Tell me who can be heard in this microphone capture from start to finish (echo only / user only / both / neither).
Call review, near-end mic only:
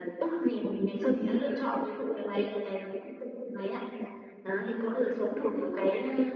echo only